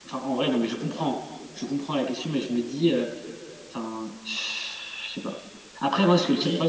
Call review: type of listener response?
listening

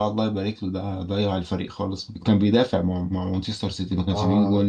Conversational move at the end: taking over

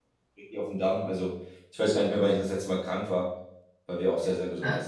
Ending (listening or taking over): taking over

